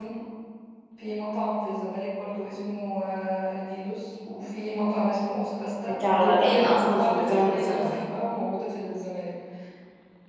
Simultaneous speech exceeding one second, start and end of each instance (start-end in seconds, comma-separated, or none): 5.9-8.0